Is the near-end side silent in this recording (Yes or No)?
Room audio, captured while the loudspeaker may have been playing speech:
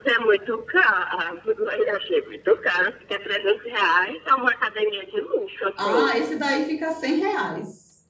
No